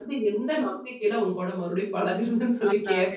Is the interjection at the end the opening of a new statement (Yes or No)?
Yes